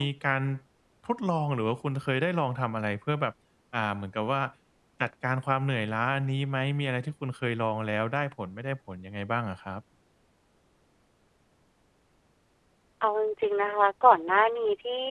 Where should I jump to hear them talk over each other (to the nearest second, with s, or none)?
none